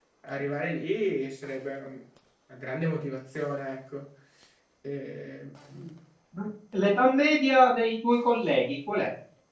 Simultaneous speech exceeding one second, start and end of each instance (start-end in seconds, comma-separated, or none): none